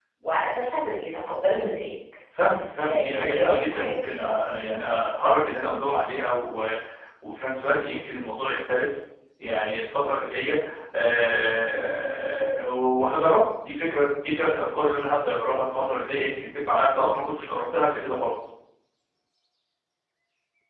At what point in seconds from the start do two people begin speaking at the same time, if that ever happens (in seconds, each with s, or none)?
2.8 s